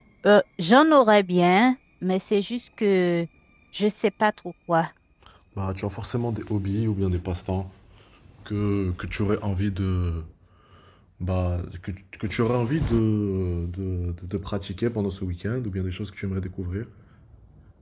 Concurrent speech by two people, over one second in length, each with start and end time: none

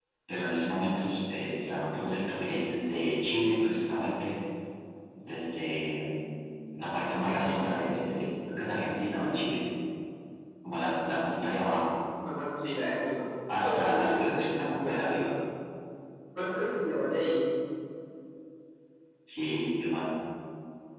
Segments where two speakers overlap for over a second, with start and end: 13.6-15.1

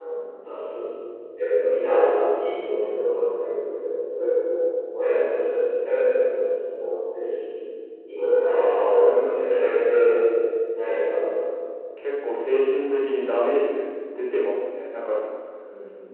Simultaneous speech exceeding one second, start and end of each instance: 8.4-10.1

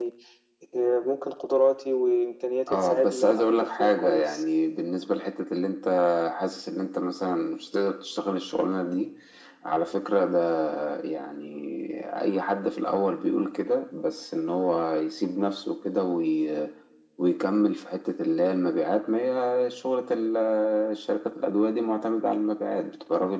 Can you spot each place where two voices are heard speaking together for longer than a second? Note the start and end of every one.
2.7-4.4

